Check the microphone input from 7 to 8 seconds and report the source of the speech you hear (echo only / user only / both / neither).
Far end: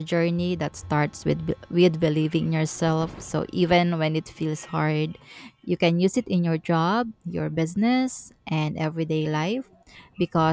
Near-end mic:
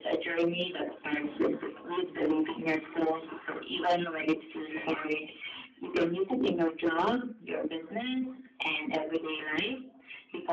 echo only